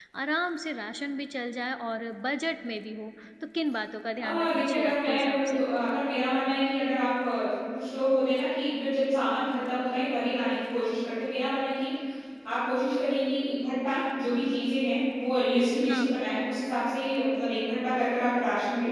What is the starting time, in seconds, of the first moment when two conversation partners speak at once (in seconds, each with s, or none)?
4.2 s